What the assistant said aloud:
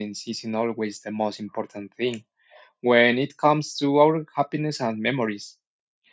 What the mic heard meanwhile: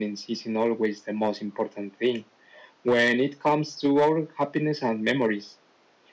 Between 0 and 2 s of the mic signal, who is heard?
echo only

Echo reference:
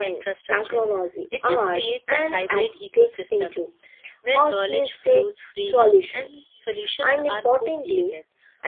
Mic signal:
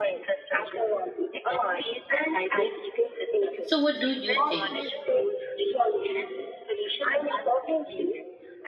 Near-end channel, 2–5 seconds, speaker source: both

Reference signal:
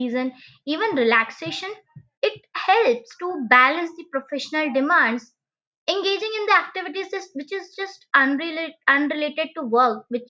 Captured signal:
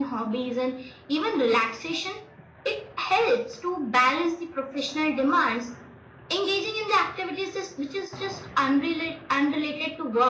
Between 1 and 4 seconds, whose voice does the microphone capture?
echo only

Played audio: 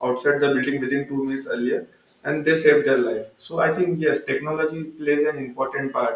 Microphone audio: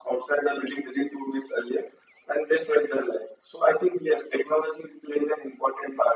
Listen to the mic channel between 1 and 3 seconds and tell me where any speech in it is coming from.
echo only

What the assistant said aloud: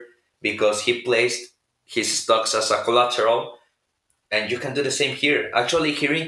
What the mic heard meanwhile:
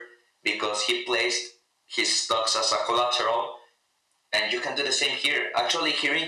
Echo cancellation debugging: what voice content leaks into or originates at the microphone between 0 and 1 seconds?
echo only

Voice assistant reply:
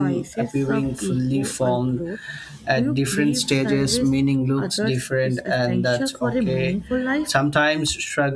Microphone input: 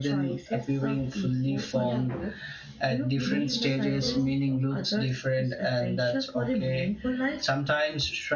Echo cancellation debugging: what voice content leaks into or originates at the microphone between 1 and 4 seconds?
both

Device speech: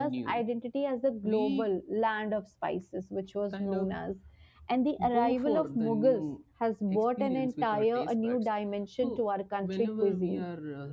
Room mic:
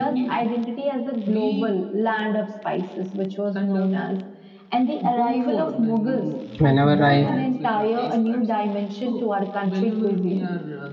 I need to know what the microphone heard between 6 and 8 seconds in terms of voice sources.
both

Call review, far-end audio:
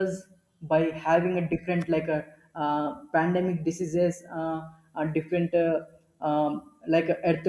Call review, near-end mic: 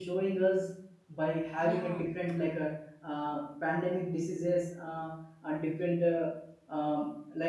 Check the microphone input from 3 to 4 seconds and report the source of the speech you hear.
echo only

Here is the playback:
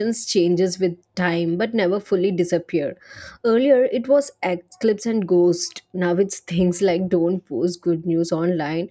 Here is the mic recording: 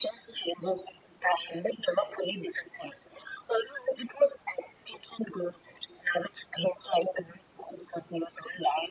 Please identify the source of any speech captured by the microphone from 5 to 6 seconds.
echo only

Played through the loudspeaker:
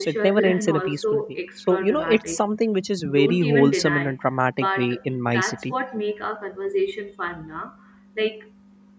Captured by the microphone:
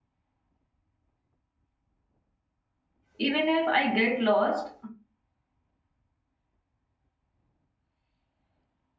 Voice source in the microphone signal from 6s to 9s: neither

